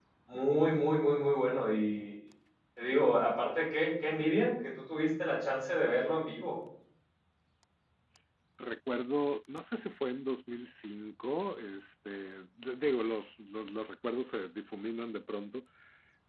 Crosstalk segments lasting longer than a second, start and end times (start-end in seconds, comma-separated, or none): none